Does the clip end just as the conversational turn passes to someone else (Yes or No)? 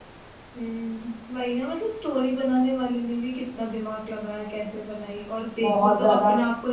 No